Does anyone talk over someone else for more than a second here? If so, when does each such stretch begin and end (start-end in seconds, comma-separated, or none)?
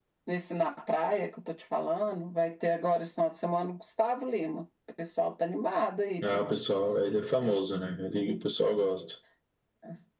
none